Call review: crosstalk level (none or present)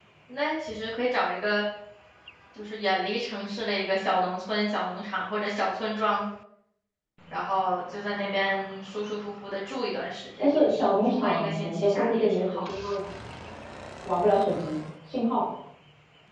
present